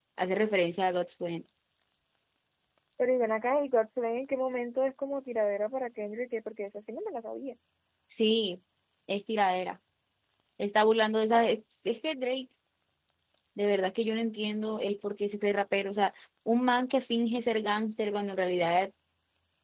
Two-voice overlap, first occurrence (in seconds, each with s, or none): none